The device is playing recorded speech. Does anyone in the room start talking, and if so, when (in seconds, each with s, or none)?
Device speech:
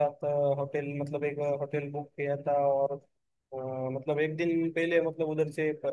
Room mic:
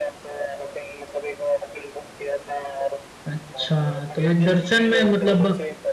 3.3 s